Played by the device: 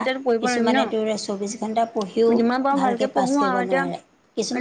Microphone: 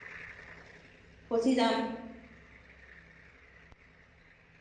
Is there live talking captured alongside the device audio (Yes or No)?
Yes